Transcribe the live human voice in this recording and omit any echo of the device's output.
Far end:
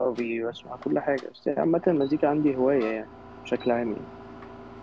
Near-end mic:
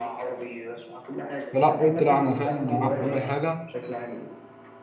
فلا قلت لا انا فاهم انا اعمل حاجه

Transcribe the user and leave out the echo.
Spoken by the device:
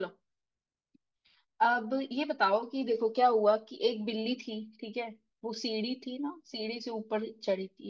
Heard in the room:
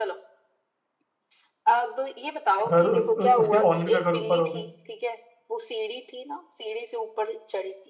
घर उ, उ, उसके ओनर का घर ऊपर होगा

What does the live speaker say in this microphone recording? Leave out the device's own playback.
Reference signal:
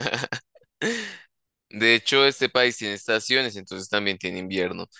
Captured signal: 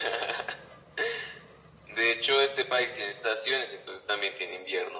none

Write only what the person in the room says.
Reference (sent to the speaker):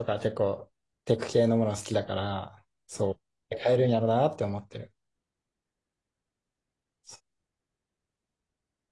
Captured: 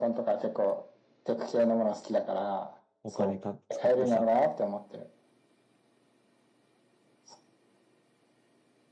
お金か、使ってさ、

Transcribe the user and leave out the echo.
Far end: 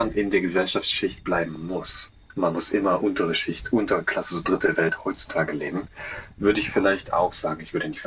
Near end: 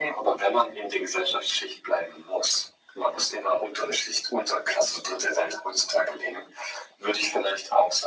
none

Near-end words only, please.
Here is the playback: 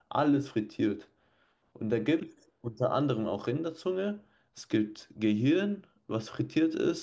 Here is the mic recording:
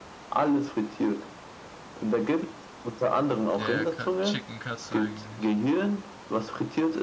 Ja, ja, Ka- Chicken Katsu eigentlich.

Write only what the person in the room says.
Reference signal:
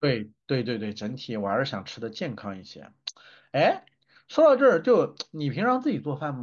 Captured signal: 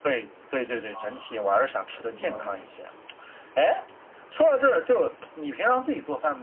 啊，我懂了，我懂

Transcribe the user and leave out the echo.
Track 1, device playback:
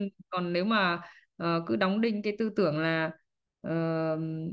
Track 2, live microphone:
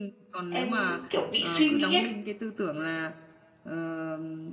em kiểu bị suy nghĩ ấy,

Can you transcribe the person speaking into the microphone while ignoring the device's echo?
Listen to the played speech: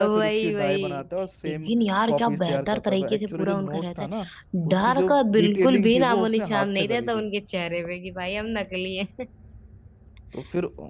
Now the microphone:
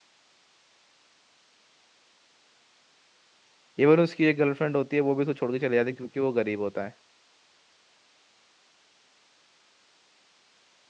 इवन उसकी एक गर्लफ्रेंड होती है वो भी उसको छोड़ के चले जाती है क्योंकि वो गरीब होता है

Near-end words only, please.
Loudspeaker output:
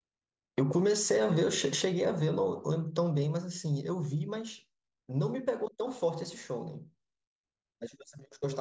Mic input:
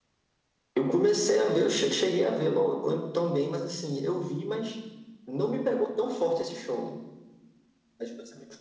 none

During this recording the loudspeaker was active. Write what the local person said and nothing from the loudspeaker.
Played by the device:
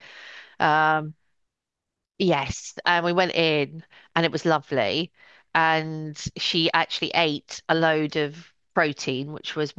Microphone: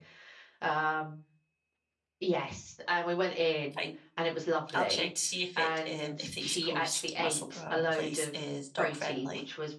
fine. I'll check to see if it um if the East Coast Musselburgh place is dog friendly.

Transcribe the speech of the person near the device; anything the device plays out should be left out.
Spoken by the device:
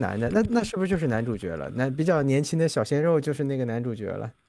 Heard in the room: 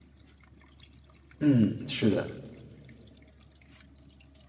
嗯，是的，

